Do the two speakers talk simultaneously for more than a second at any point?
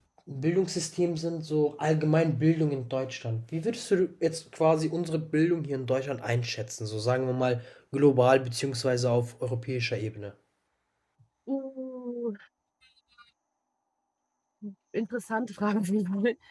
No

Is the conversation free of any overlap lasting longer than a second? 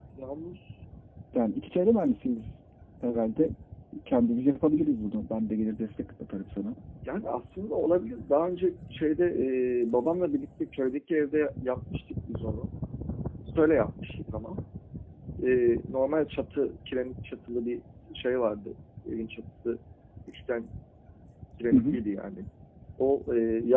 Yes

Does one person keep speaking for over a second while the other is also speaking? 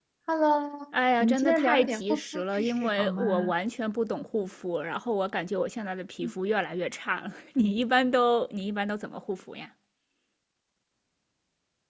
Yes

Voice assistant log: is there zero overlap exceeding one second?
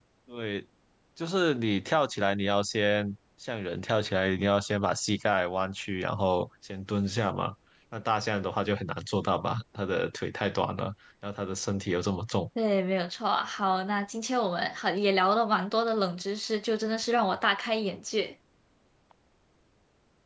Yes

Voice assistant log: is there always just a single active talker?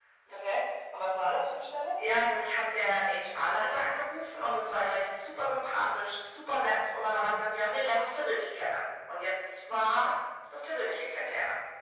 Yes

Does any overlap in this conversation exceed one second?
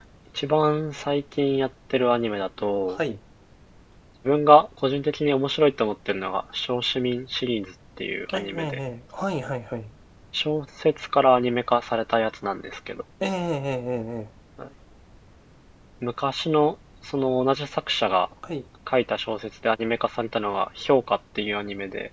No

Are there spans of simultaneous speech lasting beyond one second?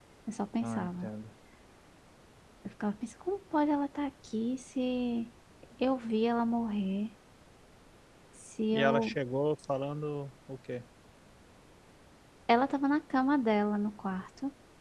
No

